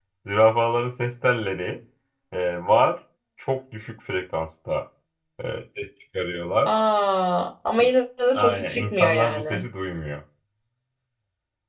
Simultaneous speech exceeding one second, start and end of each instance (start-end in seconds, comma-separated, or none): 8.3-9.6